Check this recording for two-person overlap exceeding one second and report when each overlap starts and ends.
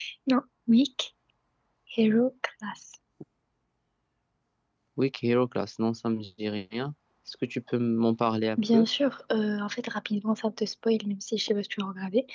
none

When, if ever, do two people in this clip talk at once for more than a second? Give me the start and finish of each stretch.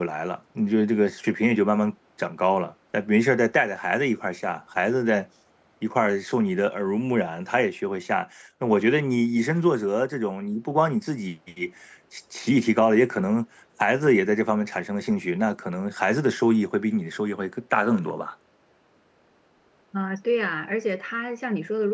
none

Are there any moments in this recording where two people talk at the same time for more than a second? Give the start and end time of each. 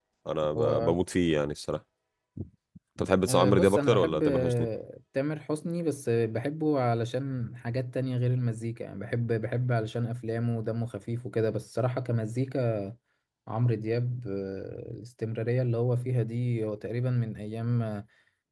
3.3-4.7

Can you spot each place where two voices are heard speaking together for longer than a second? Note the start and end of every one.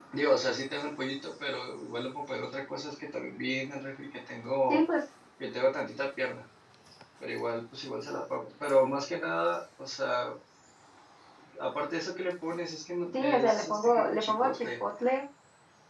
13.1-14.7

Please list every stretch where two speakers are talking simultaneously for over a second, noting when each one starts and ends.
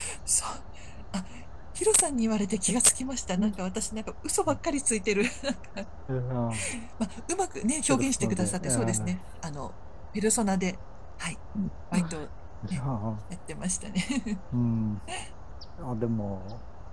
7.9-9.1

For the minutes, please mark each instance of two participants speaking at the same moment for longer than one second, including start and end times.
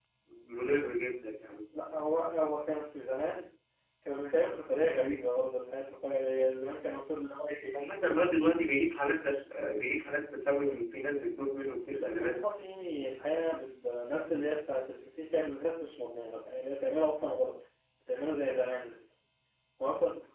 none

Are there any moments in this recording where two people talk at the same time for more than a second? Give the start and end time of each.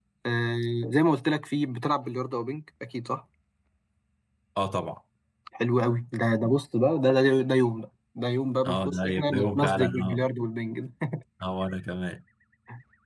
8.6-10.2

